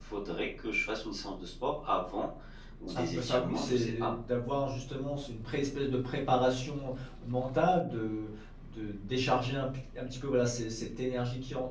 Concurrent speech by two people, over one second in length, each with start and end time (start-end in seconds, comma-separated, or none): 2.9-4.2